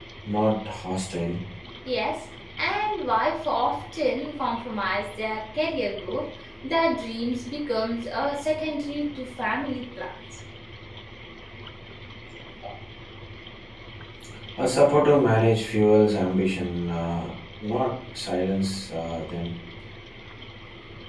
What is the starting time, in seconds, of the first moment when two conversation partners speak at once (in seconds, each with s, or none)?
none